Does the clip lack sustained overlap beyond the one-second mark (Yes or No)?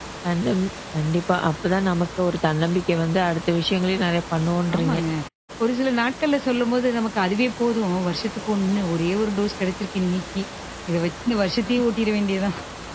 Yes